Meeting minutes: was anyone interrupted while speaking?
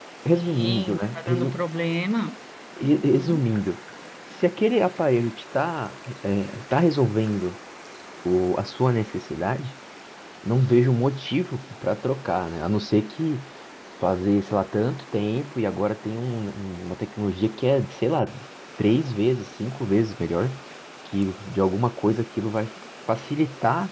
Yes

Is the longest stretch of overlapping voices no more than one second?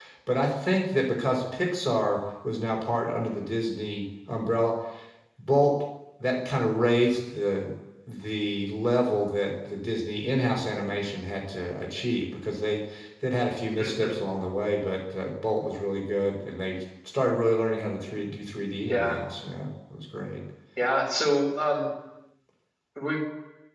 Yes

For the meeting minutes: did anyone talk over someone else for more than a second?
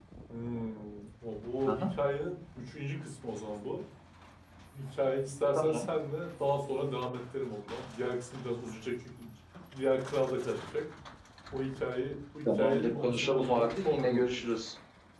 Yes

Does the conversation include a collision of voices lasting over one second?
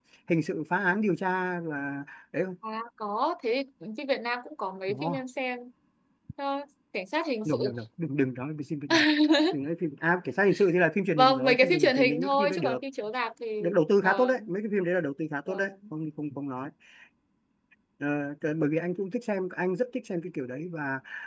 Yes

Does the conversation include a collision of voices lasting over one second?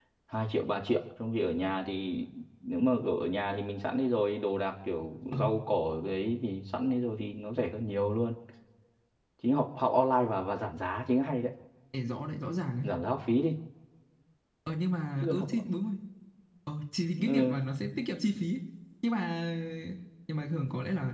No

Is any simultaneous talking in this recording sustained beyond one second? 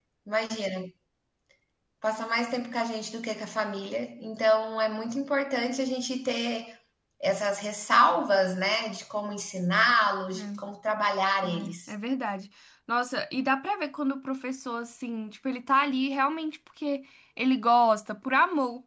No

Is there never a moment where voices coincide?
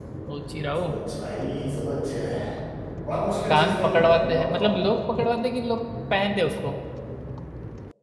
No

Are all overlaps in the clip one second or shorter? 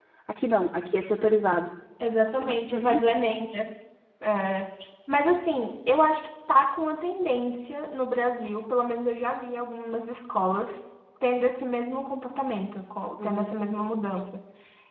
Yes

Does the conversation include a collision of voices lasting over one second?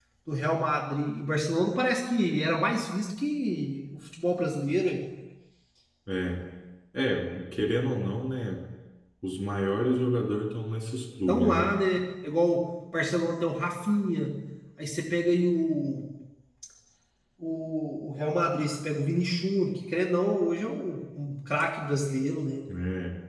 No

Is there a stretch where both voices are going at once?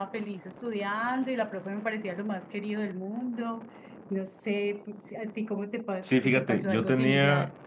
Yes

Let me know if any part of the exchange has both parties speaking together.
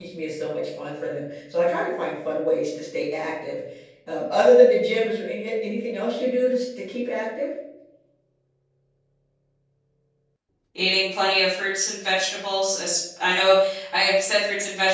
No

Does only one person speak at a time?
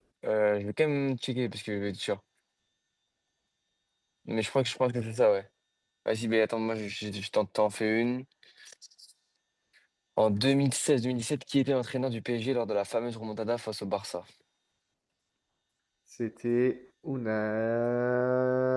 Yes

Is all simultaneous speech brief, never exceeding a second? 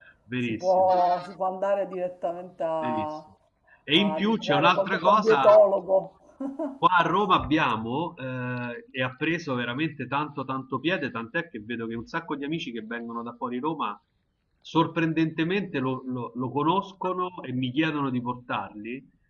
No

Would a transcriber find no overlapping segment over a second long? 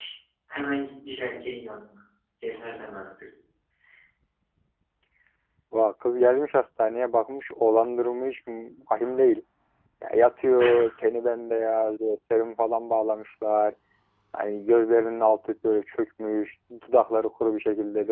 Yes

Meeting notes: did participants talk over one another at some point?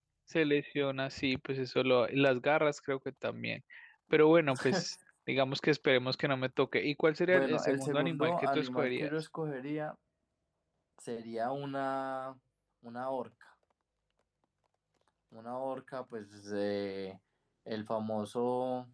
Yes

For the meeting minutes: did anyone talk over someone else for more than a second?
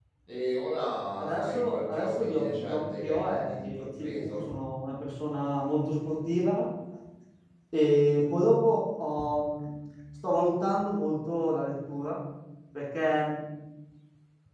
Yes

